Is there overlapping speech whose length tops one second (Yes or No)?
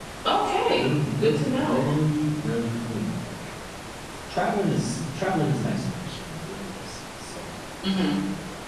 Yes